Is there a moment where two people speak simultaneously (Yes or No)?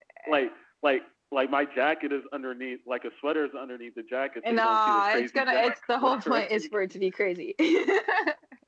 Yes